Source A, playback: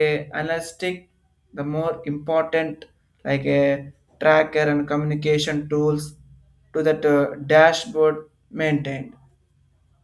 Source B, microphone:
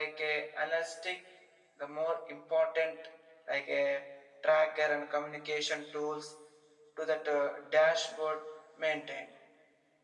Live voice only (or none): none